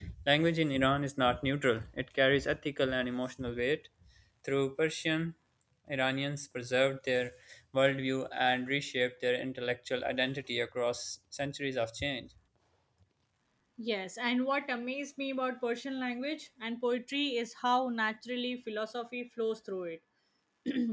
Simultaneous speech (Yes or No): No